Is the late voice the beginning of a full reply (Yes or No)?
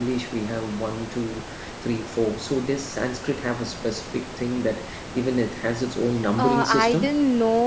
Yes